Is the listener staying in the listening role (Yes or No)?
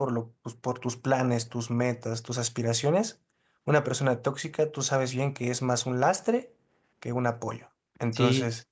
No